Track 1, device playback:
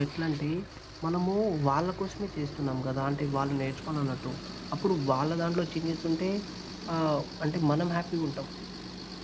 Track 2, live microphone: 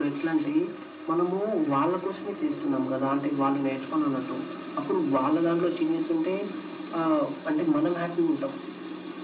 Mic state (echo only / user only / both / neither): echo only